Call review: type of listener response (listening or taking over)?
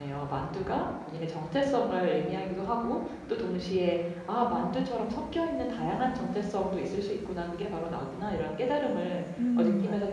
listening